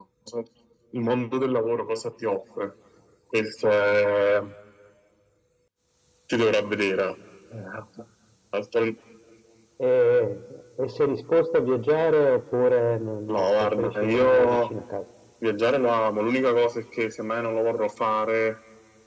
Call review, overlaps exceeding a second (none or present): present